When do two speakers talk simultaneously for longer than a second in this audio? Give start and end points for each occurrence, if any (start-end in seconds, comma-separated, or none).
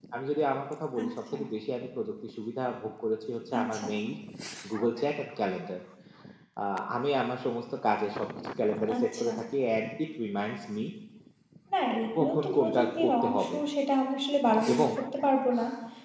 12.2-13.6